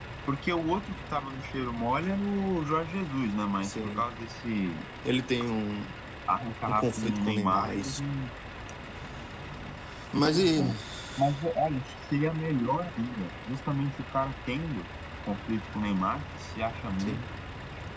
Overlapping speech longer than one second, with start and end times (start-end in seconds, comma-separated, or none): 6.7-8.0